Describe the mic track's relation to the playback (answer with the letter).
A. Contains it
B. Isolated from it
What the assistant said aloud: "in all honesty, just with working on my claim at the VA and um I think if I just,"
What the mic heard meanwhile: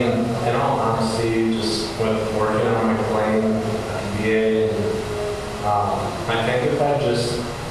A